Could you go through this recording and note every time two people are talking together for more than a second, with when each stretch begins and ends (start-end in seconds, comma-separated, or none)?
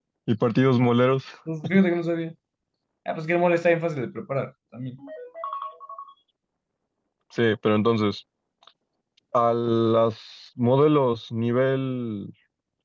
none